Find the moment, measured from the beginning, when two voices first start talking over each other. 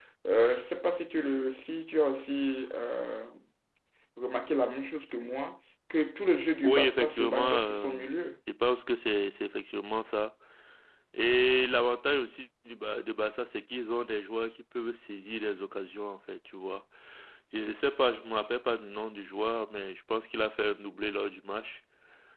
6.6 s

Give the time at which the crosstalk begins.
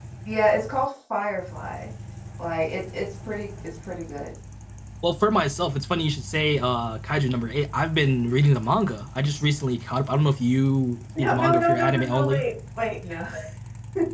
11.2 s

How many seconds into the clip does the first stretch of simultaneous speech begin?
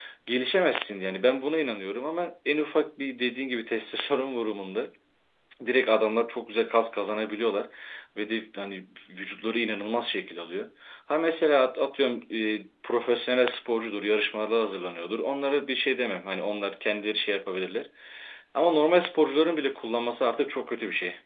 none

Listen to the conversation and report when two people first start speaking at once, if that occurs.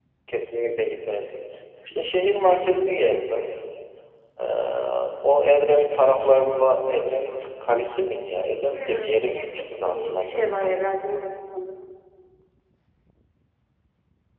8.7 s

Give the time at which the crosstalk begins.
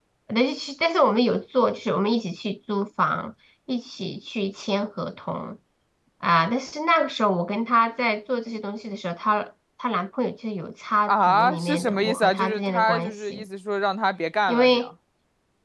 11.1 s

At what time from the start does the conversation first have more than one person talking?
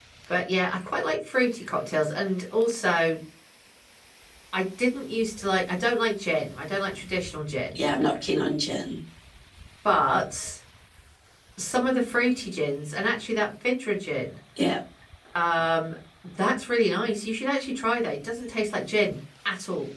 none

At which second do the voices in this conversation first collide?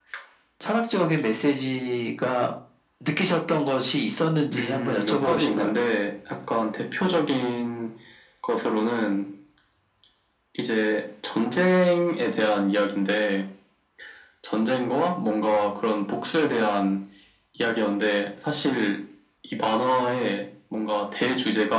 4.5 s

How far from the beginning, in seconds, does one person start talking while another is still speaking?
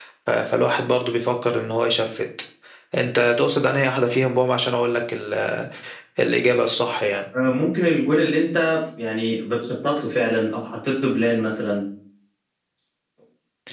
none

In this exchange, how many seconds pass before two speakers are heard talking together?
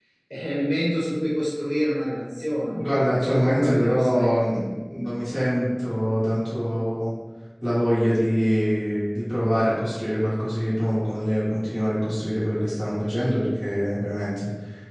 2.7 s

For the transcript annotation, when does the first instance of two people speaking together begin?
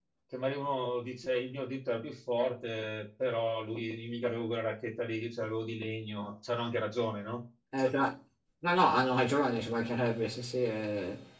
none

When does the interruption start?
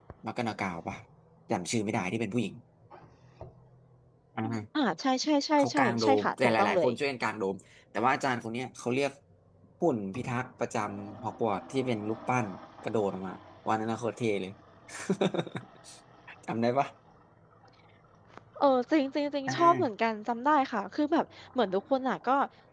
5.6 s

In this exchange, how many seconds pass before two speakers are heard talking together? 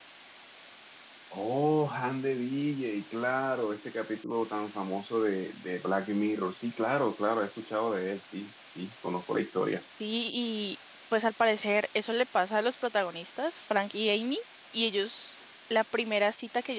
none

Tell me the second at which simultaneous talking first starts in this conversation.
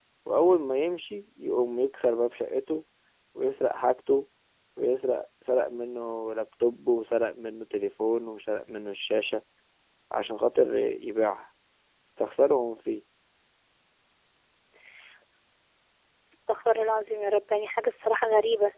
none

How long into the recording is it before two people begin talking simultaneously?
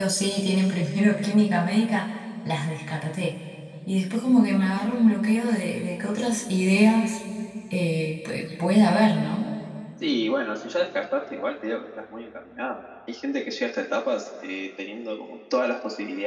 none

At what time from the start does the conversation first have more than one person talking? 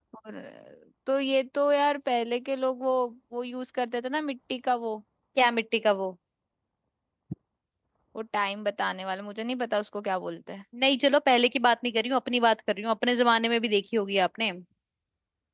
none

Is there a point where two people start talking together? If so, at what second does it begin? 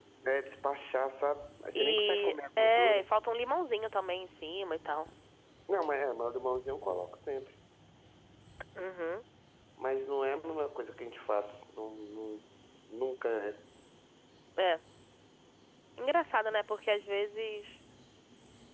1.8 s

